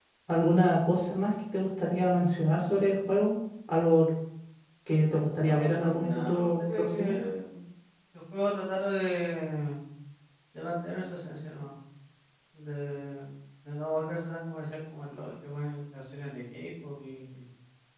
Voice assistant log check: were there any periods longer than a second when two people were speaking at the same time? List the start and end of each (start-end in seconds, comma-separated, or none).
5.5-7.1